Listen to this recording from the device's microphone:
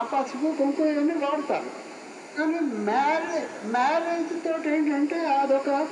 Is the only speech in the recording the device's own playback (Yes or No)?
Yes